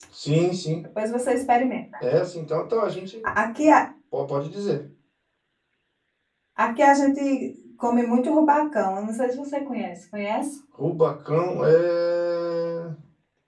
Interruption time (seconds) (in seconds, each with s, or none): none